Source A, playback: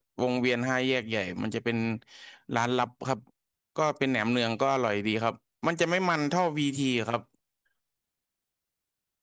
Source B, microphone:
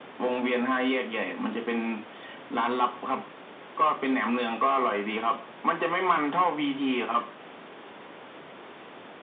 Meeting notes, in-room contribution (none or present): none